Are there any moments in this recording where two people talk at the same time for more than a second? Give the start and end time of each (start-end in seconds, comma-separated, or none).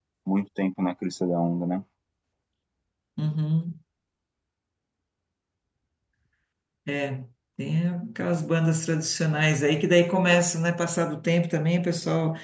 none